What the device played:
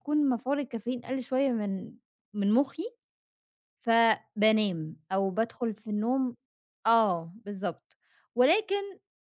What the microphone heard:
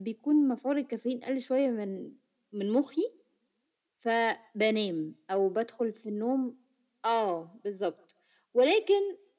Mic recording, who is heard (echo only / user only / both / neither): echo only